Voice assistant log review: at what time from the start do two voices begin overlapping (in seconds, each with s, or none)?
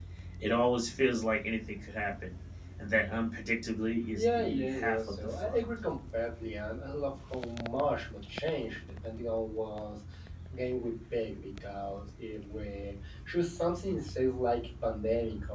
4.2 s